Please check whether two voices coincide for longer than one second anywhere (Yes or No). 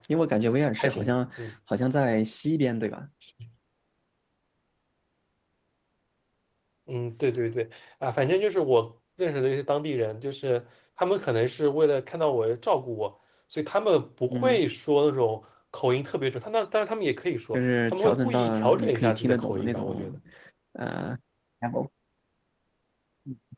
Yes